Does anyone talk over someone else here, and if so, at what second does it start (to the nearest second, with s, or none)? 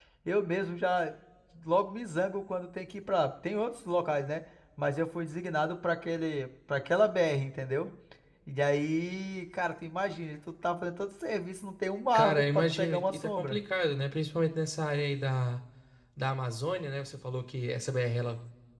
12 s